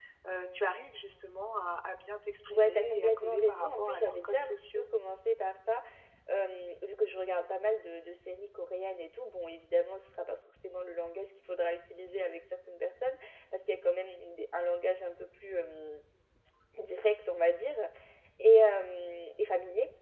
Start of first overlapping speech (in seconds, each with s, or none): 2.5 s